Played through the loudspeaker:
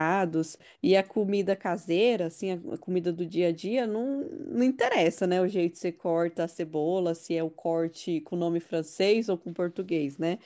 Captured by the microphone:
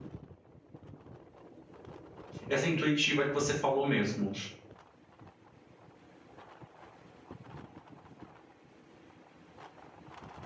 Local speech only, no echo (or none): essa intuitiva que você falou mesmo.